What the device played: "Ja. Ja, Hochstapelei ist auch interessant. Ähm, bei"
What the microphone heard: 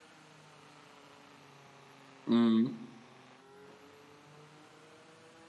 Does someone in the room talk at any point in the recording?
Yes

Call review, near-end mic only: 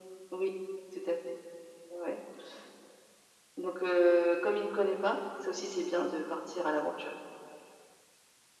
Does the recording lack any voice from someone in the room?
Yes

